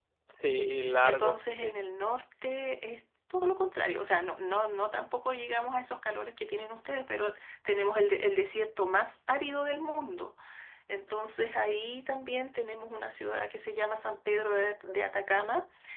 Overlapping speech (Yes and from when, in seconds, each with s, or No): Yes, from 0.6 s